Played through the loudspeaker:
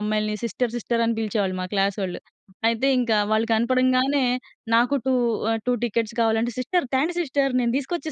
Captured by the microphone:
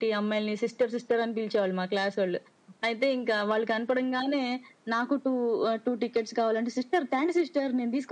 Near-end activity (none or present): none